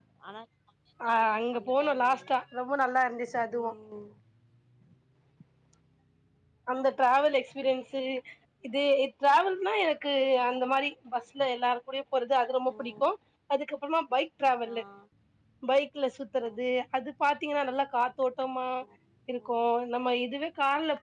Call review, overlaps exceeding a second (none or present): present